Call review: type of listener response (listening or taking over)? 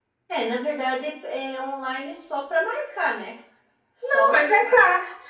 taking over